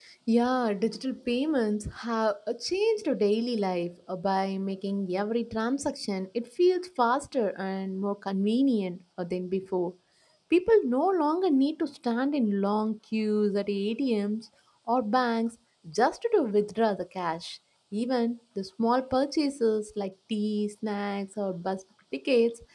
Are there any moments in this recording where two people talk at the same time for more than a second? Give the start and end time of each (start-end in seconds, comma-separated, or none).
none